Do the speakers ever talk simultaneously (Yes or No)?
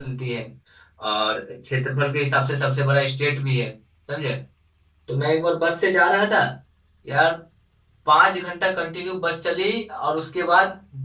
No